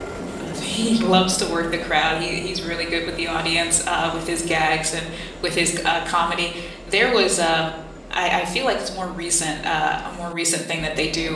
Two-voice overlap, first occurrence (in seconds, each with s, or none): none